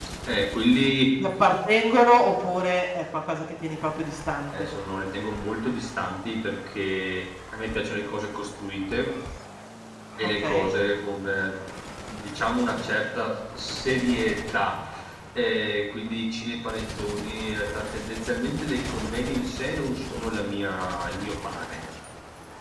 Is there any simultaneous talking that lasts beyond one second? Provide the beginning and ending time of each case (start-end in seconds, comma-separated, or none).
none